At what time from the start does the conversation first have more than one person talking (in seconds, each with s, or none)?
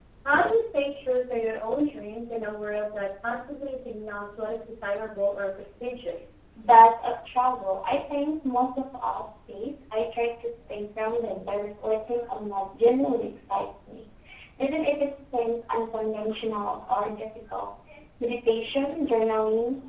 none